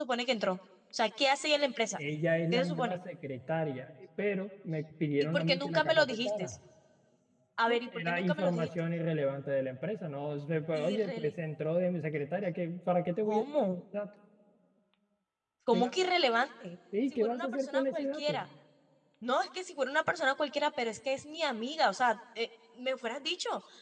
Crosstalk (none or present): present